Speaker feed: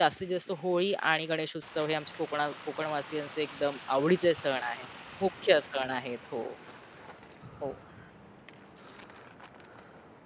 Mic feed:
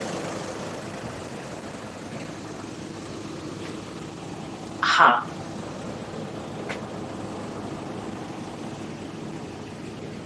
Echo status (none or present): none